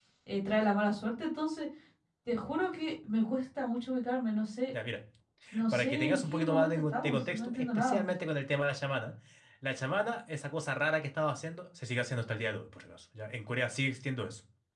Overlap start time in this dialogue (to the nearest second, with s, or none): 6 s